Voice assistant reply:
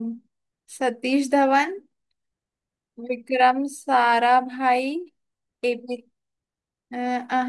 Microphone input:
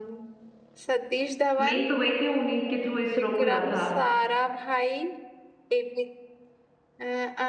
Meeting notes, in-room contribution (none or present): present